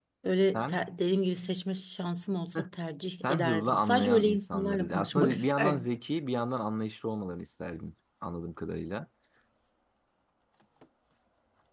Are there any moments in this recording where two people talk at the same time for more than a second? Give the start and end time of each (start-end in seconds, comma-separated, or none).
3.2-5.9